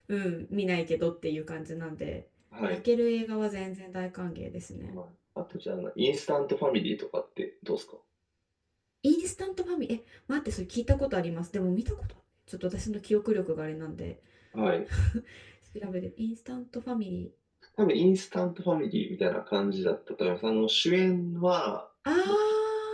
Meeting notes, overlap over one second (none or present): none